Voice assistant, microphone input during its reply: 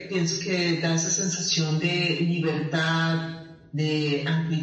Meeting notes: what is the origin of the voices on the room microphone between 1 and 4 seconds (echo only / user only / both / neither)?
echo only